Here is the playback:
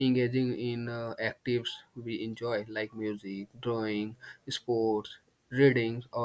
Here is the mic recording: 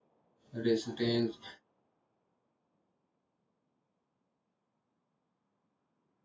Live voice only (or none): resistance.